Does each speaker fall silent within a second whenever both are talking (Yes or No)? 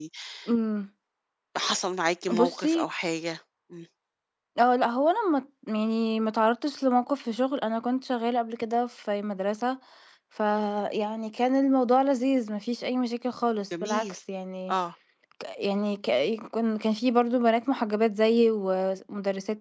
Yes